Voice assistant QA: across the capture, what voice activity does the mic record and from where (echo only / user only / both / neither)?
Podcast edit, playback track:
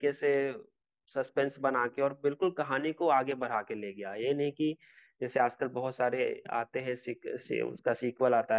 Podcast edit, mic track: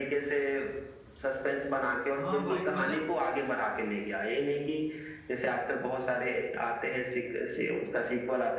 both